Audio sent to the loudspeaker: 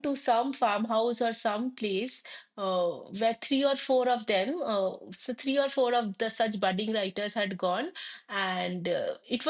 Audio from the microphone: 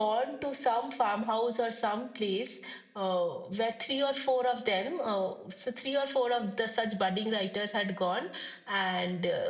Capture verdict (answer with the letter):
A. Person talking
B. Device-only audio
B